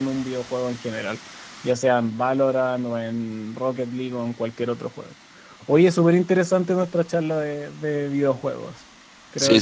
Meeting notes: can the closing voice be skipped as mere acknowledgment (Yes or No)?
No